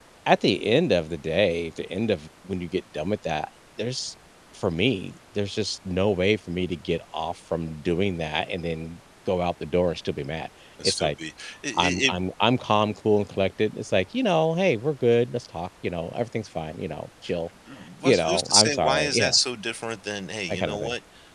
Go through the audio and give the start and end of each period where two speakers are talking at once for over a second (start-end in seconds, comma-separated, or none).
18.0-19.4